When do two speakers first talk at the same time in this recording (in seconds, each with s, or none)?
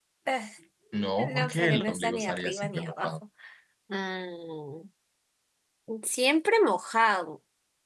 1.3 s